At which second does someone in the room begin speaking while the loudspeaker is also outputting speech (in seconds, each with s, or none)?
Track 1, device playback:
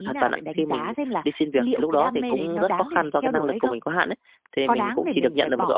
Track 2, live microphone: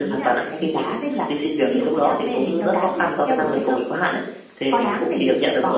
none